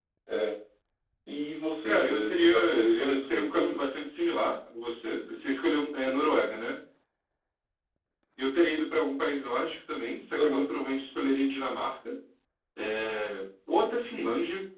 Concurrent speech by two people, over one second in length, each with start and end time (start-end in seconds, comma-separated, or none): 1.8-3.8